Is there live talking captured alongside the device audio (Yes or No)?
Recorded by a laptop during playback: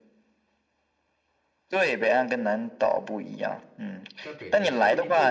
Yes